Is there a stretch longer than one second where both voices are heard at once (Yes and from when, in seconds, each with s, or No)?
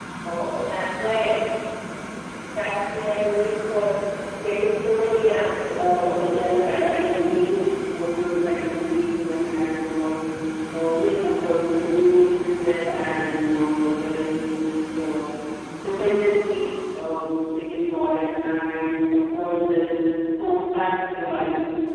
Yes, from 5.7 s